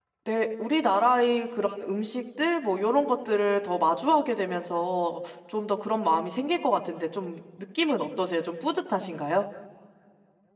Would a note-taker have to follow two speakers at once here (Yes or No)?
No